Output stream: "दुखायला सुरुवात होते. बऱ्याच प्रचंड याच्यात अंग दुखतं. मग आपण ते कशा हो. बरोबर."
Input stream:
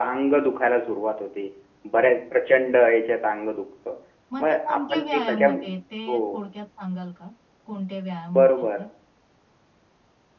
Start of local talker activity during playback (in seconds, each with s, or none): 4.3 s